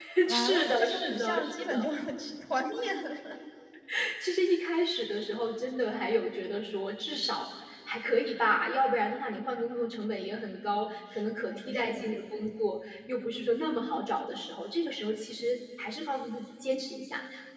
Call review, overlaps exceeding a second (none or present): present